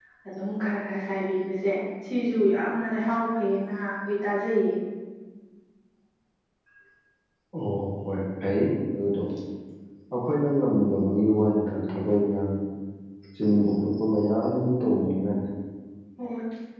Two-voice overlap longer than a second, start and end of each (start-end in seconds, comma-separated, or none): none